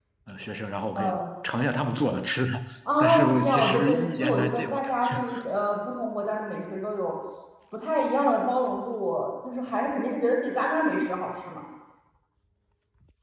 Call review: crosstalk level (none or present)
present